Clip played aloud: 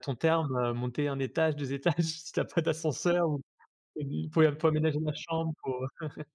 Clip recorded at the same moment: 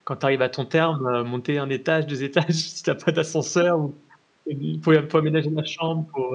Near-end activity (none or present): none